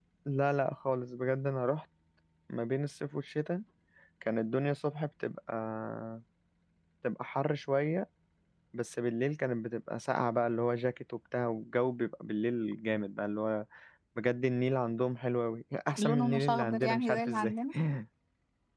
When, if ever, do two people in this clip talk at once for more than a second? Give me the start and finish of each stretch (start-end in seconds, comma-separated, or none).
16.0-17.5